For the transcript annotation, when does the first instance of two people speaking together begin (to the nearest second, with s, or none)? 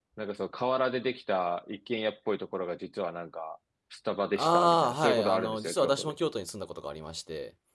4 s